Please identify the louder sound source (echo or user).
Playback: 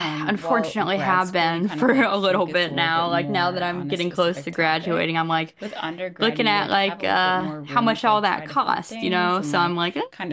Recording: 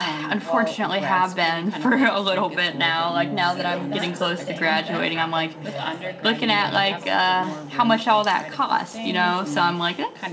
echo